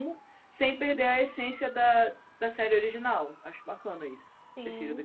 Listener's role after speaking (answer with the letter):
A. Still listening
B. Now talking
B